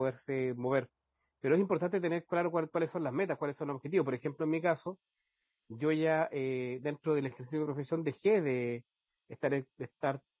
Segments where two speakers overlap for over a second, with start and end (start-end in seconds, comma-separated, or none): none